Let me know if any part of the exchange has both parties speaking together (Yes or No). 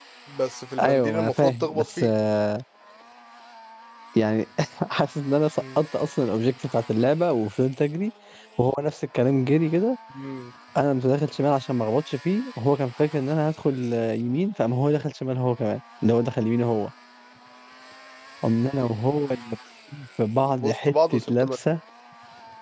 Yes